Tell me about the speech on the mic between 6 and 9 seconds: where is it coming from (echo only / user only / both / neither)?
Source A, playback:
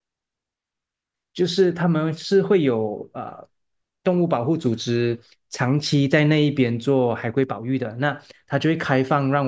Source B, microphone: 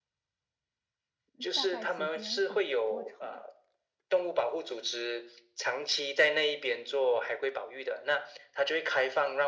echo only